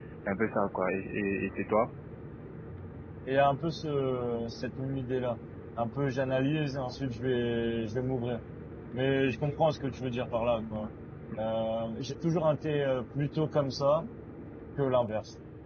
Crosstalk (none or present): none